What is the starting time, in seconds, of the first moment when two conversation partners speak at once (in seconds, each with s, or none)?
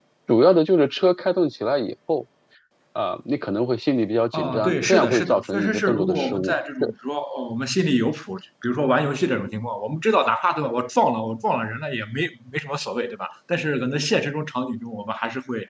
4.3 s